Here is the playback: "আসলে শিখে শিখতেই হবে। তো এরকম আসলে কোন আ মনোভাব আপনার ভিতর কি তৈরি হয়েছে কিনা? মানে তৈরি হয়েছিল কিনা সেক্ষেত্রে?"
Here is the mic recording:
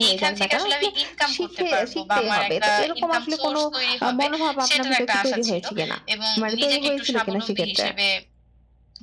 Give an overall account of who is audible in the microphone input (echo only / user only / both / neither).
both